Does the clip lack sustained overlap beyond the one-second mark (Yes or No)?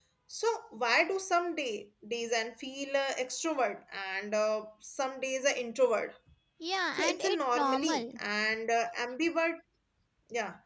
No